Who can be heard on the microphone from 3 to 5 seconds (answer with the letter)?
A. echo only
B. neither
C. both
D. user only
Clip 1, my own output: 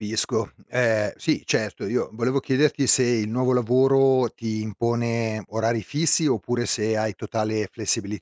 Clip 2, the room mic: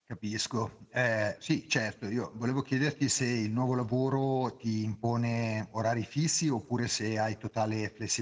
A